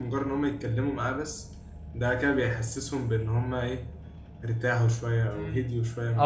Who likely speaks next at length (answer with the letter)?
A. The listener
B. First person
A